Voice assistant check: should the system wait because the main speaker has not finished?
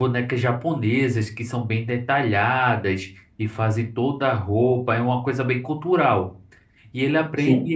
Yes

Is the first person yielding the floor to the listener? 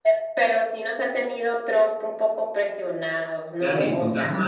Yes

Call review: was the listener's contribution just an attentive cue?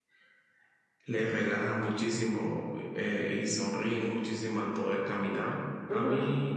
Yes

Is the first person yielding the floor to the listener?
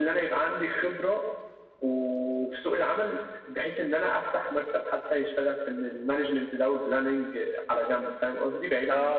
Yes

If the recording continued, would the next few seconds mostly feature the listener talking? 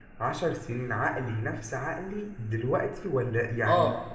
Yes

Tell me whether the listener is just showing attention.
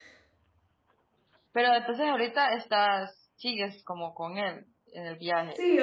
No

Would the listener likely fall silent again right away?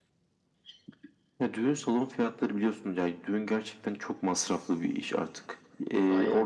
Yes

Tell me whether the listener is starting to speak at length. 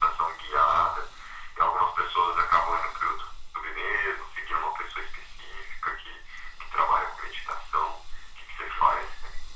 Yes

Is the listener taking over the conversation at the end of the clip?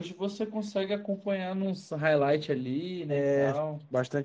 Yes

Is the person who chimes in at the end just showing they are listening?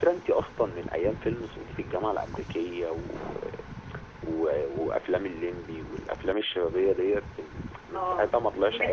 No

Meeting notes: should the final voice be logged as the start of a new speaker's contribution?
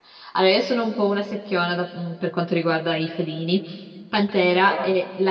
No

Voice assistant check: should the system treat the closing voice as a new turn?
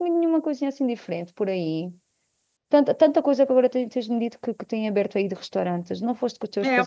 Yes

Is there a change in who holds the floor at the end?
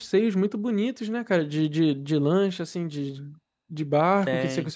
No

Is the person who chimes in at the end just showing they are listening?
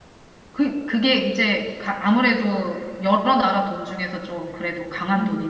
No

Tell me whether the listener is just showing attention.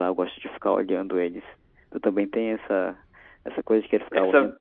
Yes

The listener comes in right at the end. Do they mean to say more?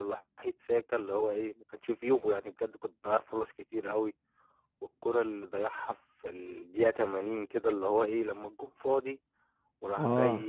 No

